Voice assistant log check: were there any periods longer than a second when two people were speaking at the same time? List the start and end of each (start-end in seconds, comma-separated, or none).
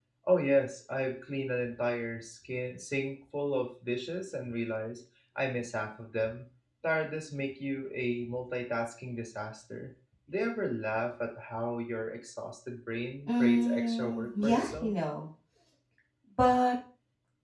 13.3-14.9